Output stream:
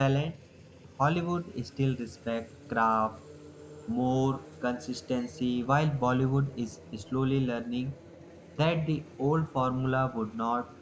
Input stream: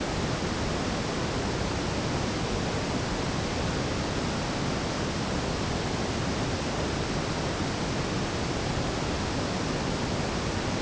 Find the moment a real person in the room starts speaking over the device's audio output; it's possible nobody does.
none

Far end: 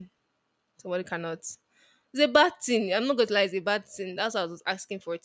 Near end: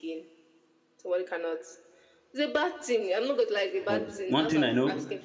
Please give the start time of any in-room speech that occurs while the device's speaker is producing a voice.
3.9 s

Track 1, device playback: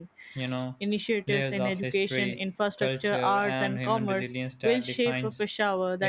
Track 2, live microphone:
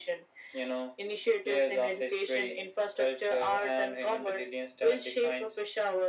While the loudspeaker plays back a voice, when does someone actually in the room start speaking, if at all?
none

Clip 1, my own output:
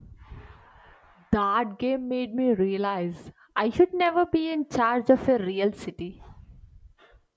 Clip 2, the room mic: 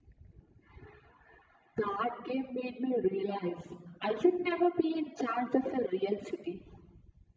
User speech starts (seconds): none

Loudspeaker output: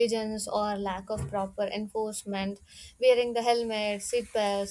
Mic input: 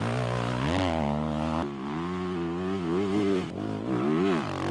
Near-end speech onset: none

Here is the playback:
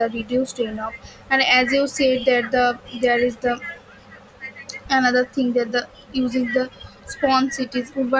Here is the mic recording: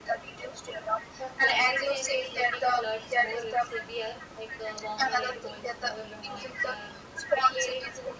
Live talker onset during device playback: 1.2 s

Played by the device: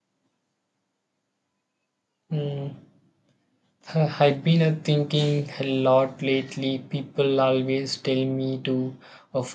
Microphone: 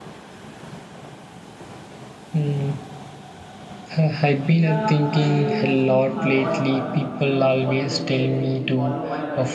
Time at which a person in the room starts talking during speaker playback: 4.5 s

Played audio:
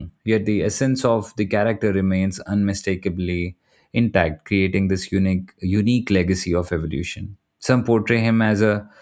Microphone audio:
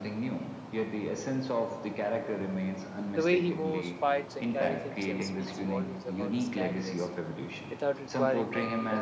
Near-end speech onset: 3.1 s

